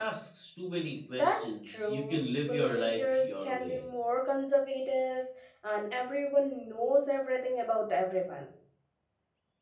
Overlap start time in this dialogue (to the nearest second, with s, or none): 1 s